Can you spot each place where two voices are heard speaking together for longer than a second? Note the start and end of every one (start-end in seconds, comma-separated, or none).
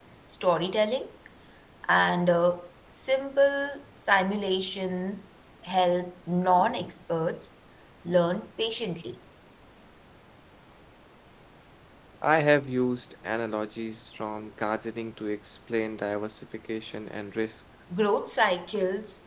none